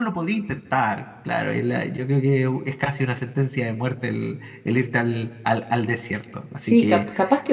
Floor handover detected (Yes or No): Yes